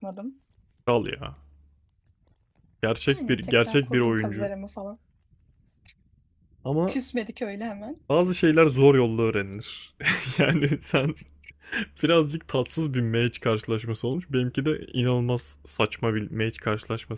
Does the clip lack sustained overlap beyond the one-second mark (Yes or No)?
No